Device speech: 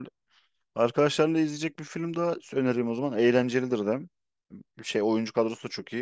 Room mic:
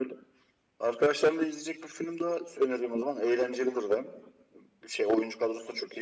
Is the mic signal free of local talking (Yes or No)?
Yes